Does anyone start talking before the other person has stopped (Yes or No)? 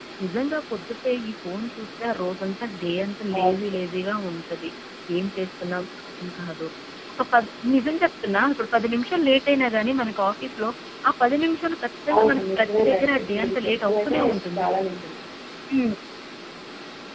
Yes